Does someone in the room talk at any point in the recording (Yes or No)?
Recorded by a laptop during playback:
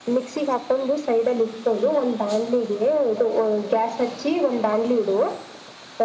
No